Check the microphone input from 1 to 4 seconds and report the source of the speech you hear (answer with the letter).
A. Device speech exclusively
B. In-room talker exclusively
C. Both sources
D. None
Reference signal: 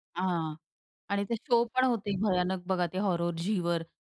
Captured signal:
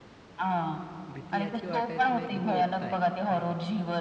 C